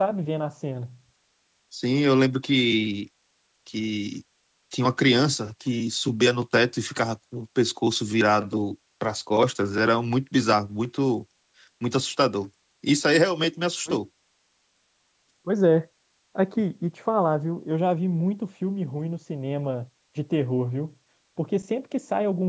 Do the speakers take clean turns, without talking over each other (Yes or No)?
Yes